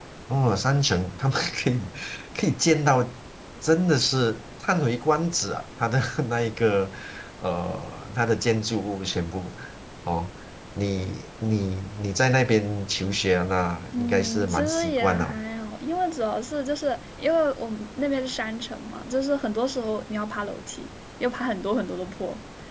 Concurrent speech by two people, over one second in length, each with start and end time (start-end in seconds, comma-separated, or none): 13.9-15.4